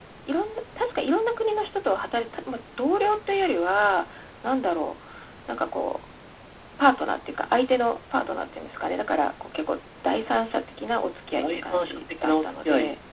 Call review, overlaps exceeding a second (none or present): present